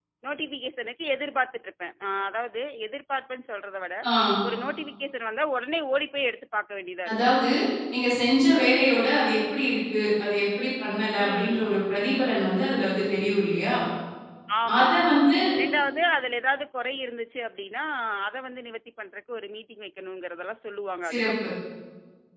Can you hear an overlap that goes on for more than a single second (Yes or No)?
No